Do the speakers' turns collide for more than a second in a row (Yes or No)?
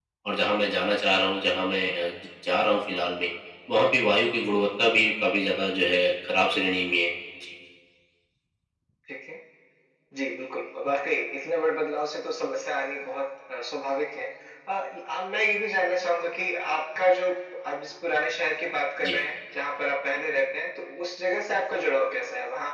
No